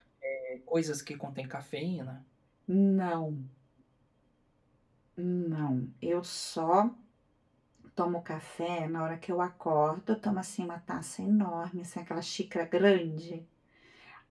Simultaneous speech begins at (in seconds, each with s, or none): none